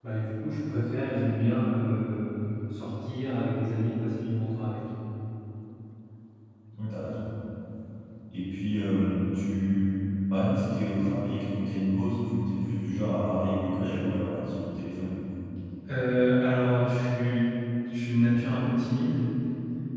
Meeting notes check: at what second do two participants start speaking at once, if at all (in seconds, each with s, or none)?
none